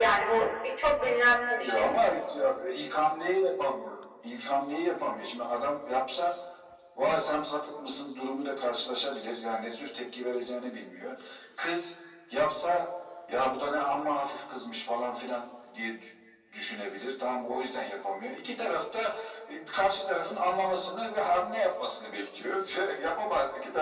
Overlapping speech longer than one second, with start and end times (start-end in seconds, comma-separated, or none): none